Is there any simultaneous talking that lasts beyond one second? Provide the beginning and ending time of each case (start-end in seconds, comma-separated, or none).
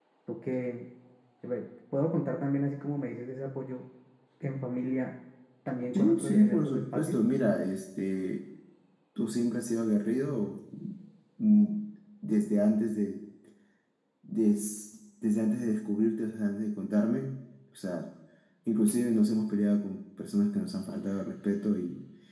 5.9-7.2